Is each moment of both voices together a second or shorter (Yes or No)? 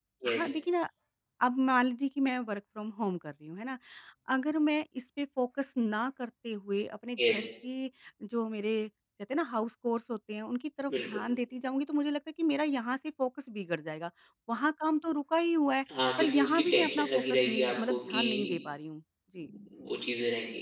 No